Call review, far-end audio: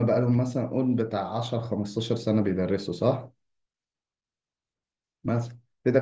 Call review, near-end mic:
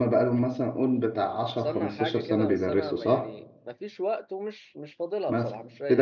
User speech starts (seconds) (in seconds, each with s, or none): 1.5 s